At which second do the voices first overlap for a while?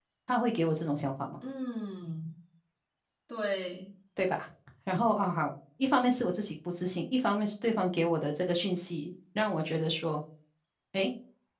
none

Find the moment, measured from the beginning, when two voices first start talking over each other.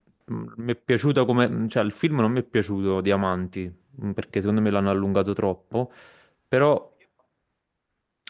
none

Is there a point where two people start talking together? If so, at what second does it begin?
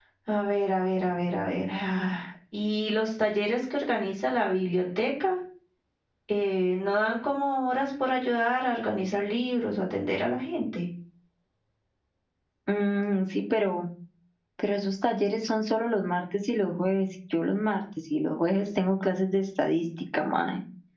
none

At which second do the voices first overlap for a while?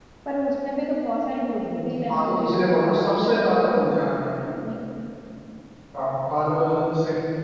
2 s

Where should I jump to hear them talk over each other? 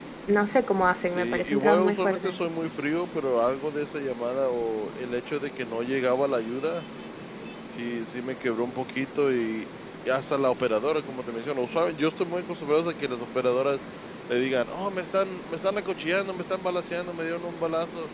1 s

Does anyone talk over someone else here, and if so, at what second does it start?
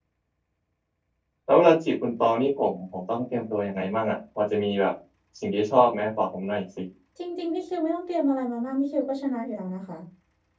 none

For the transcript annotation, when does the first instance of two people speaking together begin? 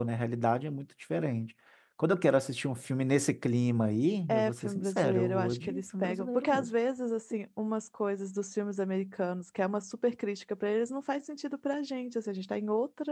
4 s

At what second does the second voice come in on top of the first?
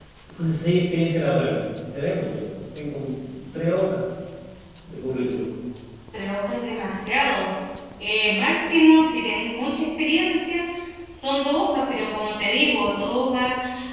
none

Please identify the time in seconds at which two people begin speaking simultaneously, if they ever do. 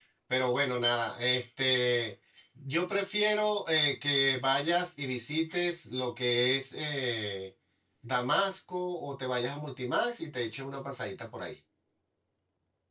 none

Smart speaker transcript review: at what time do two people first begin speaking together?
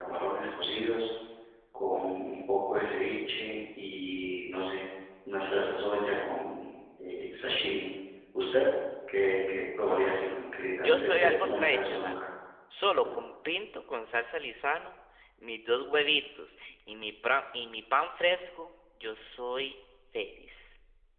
11 s

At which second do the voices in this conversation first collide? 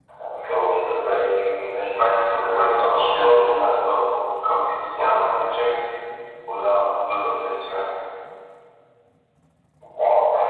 2 s

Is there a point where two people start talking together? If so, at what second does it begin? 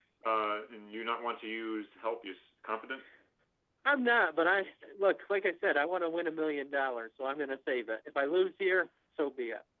none

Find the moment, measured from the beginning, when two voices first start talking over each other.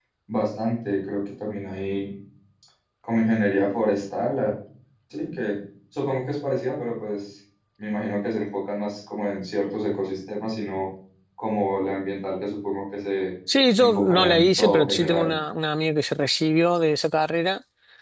14 s

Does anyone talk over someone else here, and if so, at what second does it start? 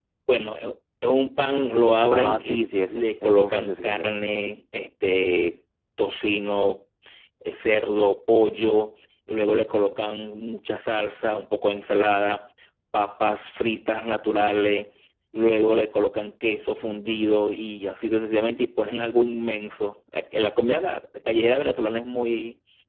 2 s

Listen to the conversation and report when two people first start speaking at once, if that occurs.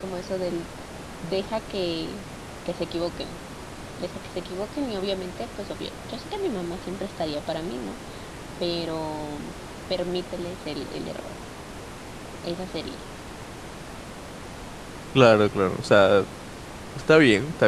none

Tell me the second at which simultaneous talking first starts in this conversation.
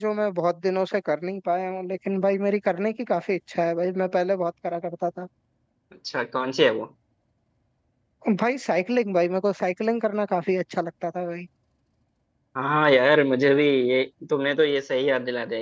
none

